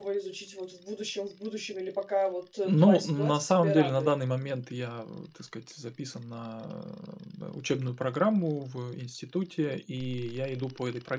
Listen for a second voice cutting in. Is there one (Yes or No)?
Yes